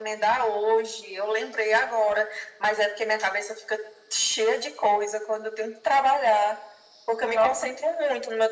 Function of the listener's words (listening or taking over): listening